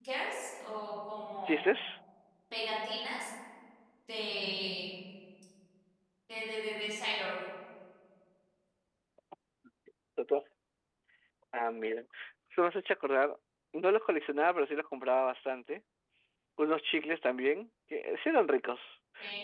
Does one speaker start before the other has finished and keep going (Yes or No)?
No